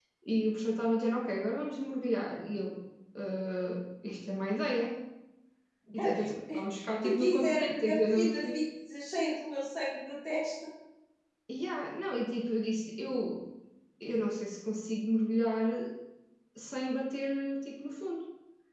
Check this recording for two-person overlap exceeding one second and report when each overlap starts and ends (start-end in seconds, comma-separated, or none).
7.0-8.6